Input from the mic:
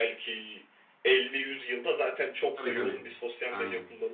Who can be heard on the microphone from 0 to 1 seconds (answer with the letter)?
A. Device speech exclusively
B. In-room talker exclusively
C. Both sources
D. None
A